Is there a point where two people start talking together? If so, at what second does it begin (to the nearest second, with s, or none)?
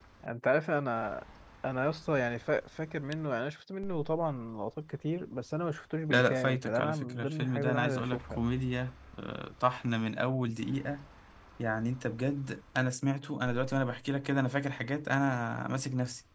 6 s